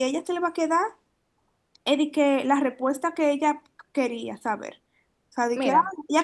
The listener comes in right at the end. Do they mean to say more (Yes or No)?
No